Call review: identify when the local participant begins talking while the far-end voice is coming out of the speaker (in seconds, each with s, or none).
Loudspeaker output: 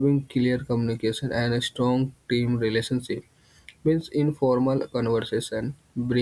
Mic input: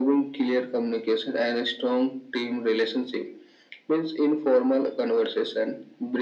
none